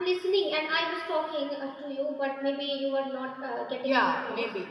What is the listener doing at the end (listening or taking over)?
taking over